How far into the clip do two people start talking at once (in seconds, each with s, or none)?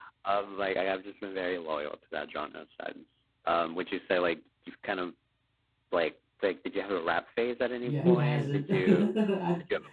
7.8 s